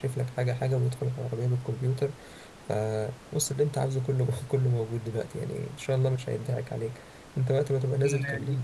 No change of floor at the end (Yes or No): No